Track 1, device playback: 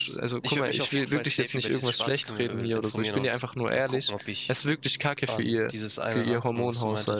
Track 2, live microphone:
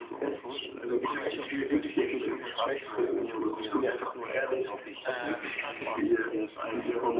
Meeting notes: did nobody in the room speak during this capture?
No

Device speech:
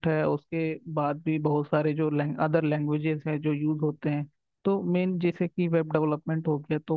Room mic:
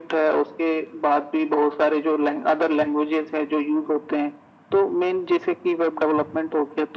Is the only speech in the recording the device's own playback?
Yes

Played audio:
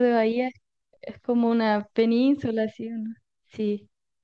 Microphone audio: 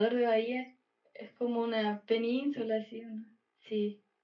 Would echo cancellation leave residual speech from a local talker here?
No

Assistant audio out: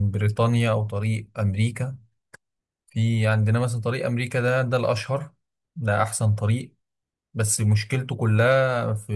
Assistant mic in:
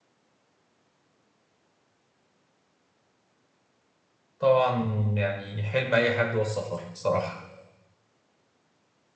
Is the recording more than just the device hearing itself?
Yes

